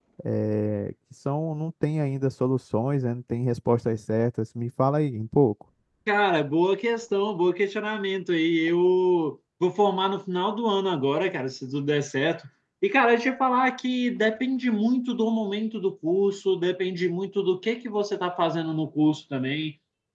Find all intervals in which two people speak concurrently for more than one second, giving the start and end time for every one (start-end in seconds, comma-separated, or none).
none